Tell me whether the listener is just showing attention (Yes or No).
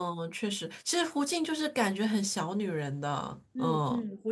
No